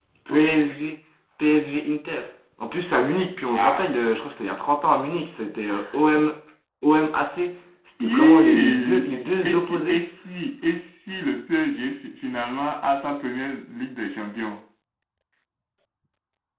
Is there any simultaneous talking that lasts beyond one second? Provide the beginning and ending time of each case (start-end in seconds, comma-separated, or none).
8.0-10.0